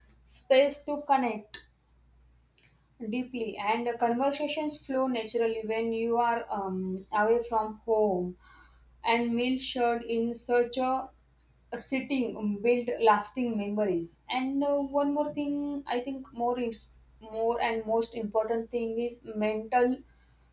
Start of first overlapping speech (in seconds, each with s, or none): none